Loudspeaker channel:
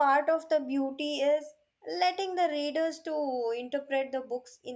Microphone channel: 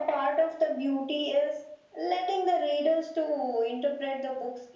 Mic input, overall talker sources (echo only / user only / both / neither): echo only